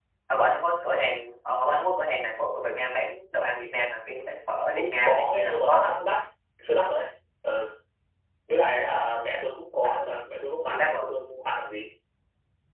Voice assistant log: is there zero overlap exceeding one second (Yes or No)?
No